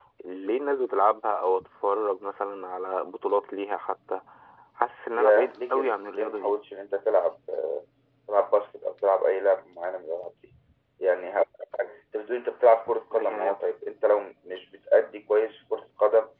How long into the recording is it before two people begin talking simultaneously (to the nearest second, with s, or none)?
5 s